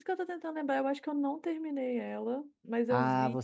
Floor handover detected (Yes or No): Yes